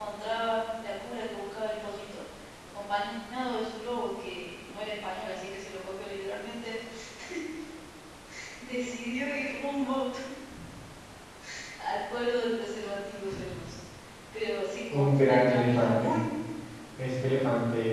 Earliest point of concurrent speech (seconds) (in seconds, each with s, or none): 14.9 s